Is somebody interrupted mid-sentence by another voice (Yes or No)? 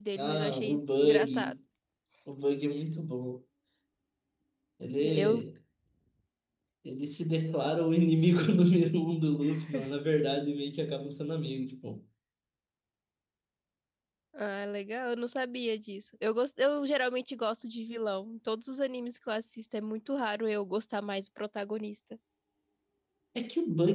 Yes